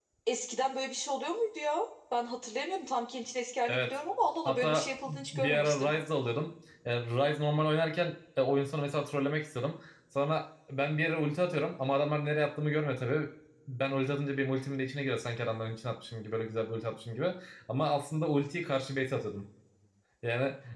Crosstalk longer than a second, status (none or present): present